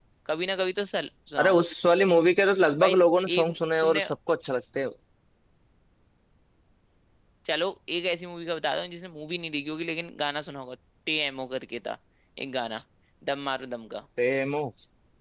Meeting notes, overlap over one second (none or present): present